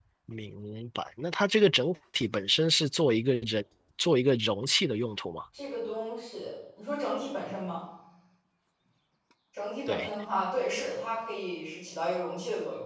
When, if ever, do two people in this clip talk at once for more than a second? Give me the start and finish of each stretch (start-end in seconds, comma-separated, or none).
none